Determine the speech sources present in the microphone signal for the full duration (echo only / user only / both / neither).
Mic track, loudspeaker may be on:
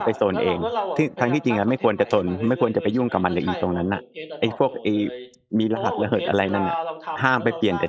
both